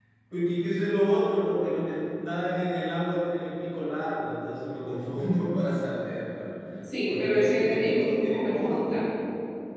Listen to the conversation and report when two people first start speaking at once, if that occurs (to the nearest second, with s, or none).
7 s